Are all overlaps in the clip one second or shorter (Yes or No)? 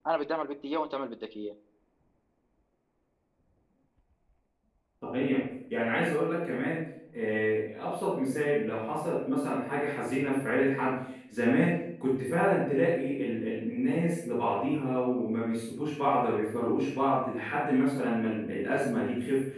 Yes